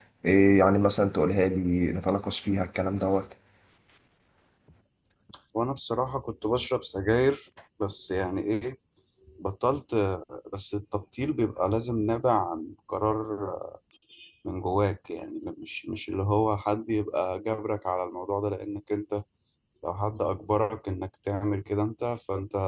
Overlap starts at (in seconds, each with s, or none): none